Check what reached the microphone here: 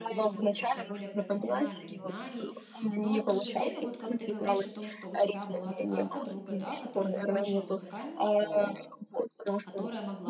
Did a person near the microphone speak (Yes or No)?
Yes